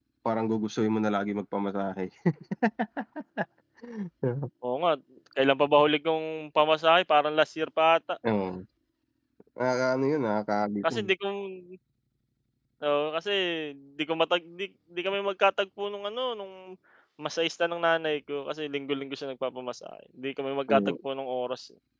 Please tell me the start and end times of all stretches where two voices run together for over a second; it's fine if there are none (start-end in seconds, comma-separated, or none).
none